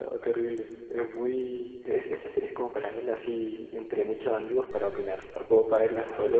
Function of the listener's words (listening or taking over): taking over